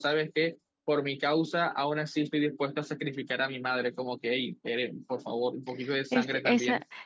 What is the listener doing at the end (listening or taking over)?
taking over